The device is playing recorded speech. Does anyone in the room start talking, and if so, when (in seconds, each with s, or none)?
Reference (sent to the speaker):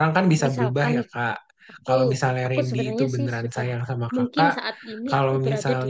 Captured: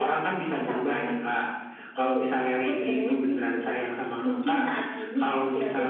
none